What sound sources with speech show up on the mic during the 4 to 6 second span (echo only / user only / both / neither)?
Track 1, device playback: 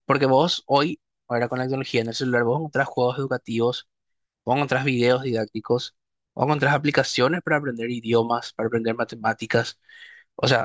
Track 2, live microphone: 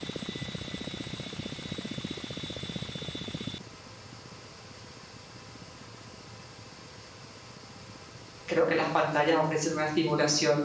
neither